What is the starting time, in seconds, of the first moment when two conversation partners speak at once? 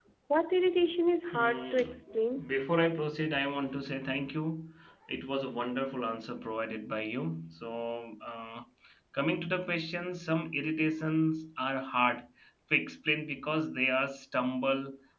1.3 s

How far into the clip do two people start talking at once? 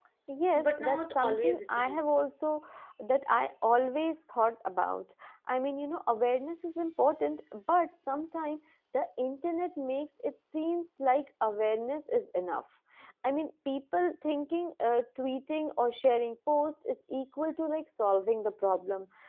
0.6 s

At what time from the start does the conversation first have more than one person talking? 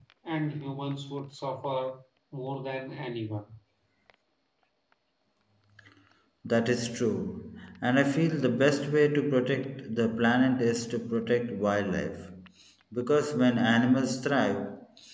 none

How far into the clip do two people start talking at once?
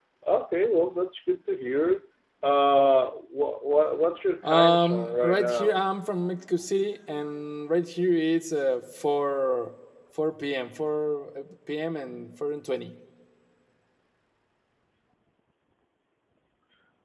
4.4 s

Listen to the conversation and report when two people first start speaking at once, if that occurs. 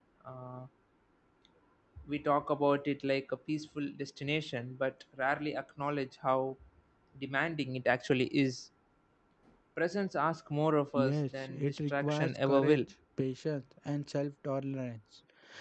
10.9 s

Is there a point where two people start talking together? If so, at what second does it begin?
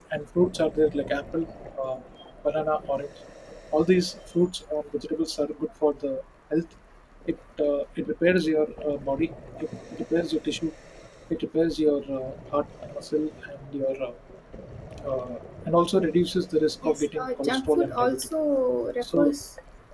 16.8 s

